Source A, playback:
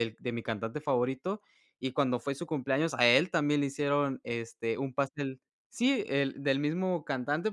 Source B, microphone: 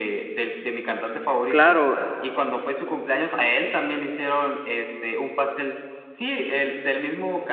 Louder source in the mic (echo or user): user